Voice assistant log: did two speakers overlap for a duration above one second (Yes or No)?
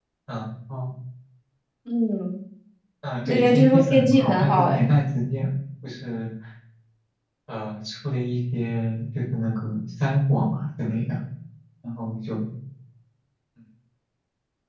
Yes